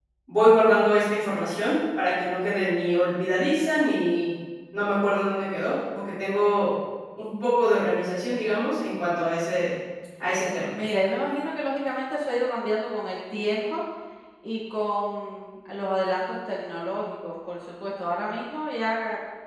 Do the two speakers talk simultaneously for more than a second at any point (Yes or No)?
No